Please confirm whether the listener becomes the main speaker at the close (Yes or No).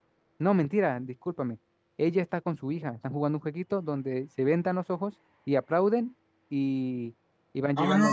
Yes